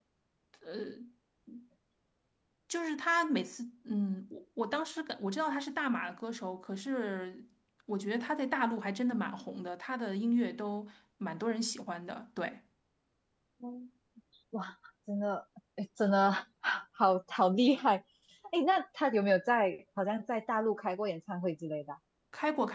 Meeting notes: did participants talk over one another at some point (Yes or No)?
No